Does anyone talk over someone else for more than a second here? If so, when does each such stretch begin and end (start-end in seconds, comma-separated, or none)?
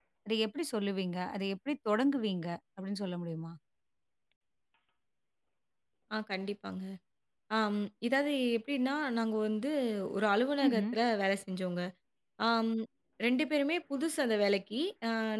none